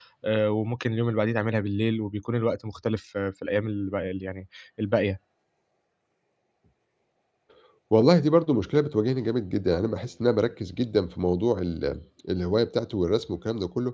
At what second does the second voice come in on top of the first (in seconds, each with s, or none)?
none